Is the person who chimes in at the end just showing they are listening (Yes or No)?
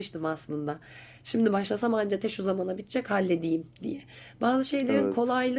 Yes